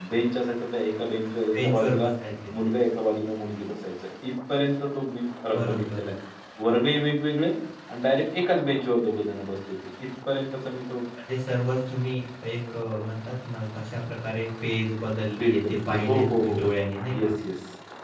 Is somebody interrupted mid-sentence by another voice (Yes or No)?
Yes